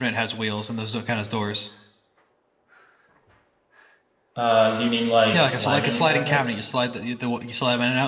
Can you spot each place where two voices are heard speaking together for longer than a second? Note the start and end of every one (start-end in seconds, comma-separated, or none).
5.3-6.6